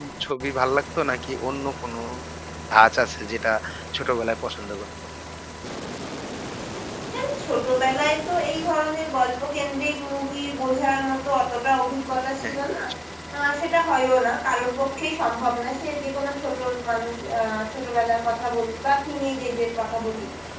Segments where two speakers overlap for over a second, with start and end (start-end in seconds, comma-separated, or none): none